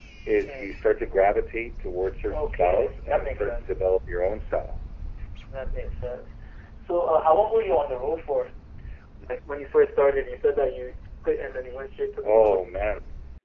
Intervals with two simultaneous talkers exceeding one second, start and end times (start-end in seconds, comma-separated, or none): 2.3-3.8